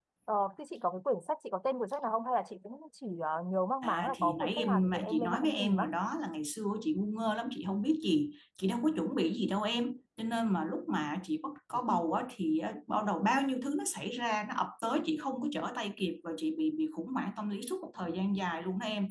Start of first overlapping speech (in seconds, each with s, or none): 3.8 s